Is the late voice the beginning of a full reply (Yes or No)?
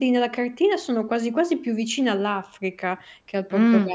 Yes